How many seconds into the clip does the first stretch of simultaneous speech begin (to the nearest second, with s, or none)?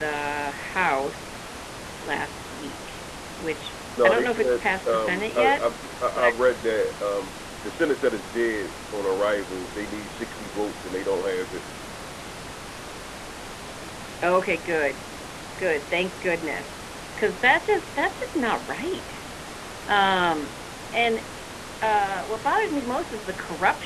4 s